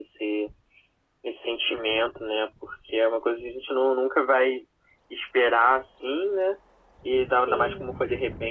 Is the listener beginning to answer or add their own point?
No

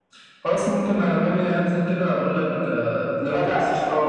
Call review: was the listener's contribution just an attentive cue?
No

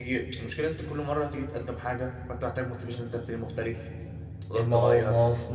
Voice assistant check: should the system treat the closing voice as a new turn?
Yes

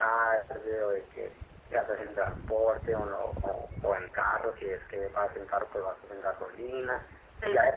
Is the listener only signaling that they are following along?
Yes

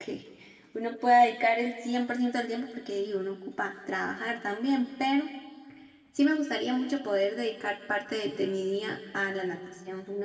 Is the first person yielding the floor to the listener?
No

